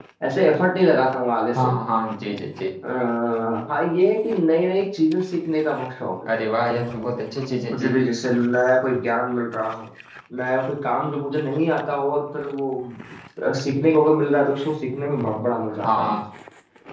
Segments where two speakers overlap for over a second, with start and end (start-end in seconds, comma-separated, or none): none